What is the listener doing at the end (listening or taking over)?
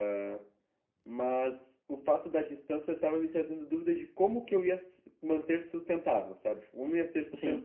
listening